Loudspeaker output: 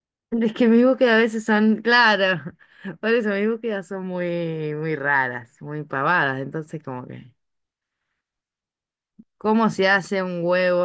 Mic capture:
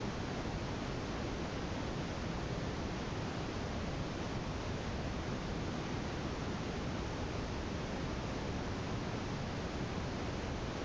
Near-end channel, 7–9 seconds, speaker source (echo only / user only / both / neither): neither